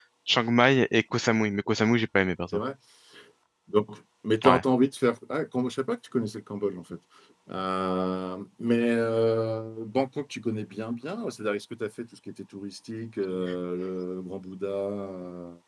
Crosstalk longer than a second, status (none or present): none